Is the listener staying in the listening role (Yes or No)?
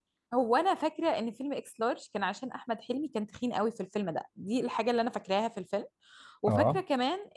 Yes